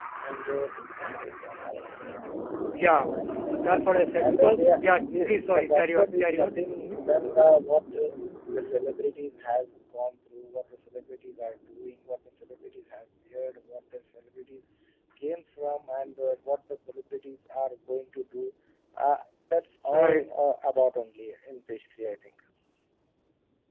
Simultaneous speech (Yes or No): Yes